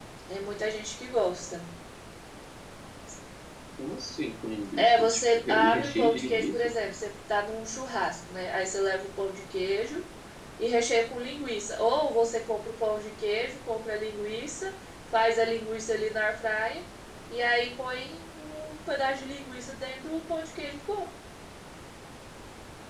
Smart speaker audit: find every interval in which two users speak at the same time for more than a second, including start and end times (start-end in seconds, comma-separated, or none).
4.8-6.7